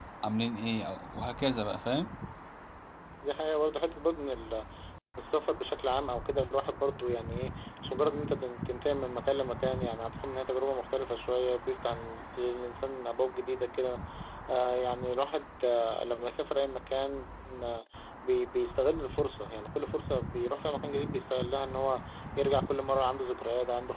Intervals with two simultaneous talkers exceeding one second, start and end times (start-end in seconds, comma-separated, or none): none